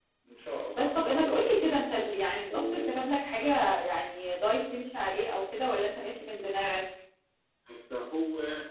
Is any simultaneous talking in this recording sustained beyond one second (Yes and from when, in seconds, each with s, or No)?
Yes, from 0.7 s